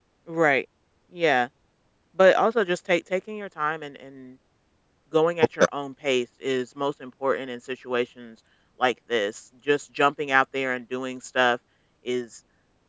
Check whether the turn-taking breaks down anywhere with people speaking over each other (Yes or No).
No